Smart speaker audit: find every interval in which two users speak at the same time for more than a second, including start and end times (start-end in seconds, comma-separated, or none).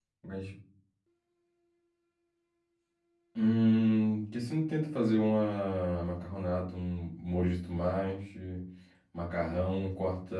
none